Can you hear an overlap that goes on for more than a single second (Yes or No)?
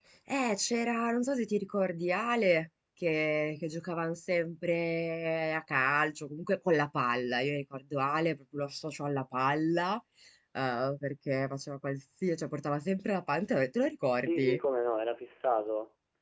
No